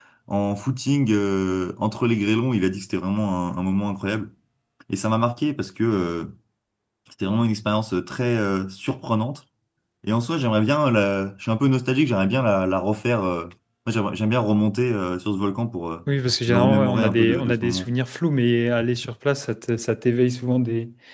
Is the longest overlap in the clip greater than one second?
Yes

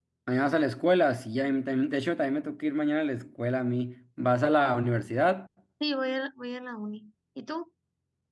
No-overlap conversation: Yes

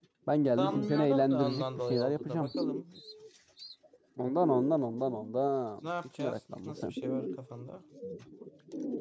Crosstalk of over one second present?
Yes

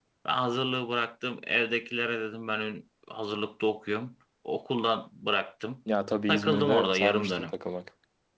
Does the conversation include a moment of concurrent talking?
Yes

